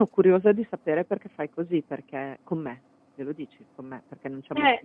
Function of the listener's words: taking over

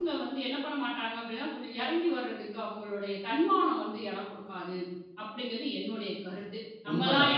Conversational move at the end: taking over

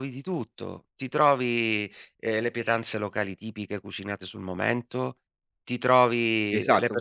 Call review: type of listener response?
taking over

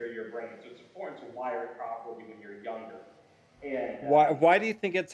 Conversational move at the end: taking over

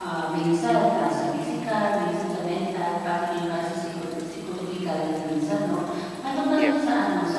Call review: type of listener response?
listening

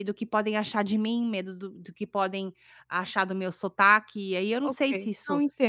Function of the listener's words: taking over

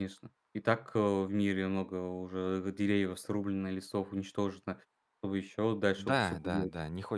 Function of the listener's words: taking over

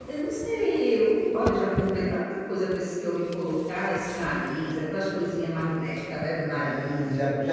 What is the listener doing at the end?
taking over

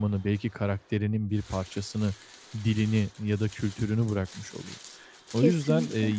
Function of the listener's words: listening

